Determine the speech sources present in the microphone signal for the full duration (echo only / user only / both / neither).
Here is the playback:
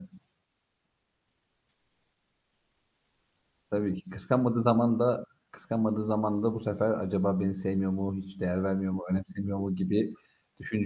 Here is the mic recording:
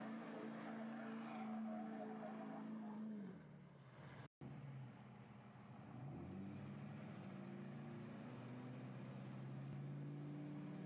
neither